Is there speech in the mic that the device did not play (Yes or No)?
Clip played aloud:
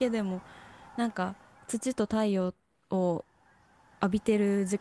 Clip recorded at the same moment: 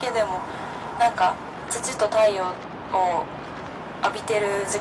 No